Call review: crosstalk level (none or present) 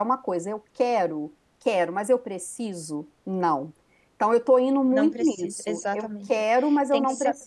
present